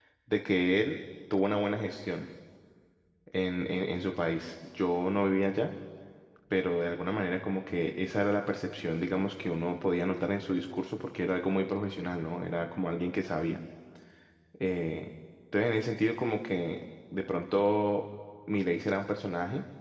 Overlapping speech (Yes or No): No